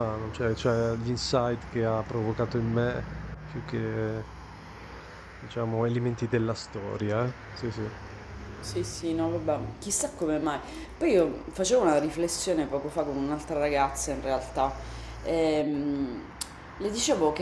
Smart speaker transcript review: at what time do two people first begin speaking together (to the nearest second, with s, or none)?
none